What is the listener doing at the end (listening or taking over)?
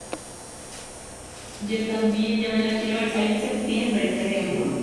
taking over